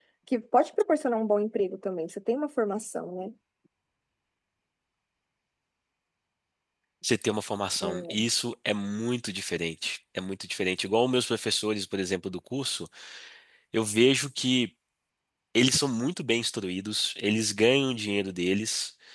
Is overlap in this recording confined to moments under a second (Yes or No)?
Yes